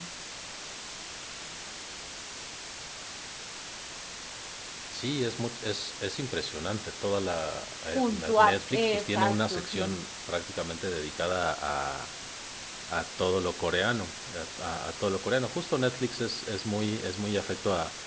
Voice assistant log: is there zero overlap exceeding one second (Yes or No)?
No